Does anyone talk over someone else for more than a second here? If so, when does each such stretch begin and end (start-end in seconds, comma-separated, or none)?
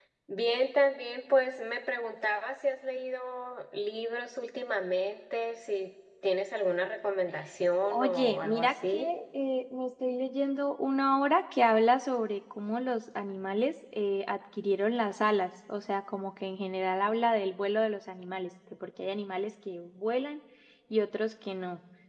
7.8-9.1